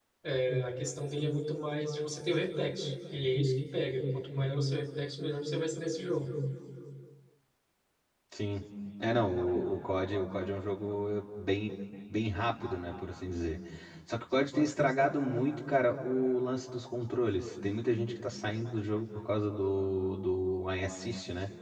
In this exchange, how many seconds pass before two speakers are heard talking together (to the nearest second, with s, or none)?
none